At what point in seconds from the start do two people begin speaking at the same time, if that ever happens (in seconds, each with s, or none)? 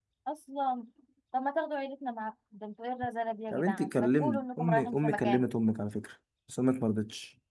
3.5 s